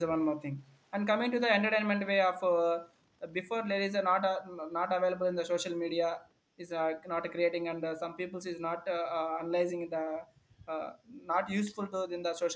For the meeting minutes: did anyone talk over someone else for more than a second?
No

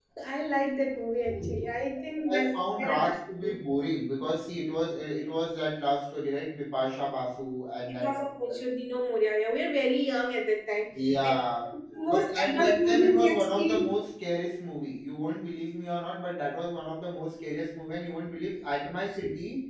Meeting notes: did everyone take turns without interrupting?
No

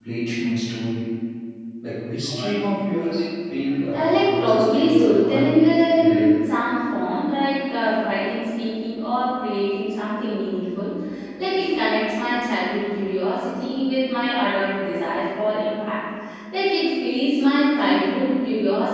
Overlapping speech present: Yes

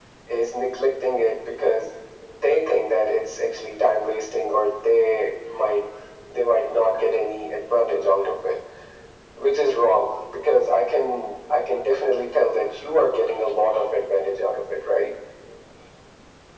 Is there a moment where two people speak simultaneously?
No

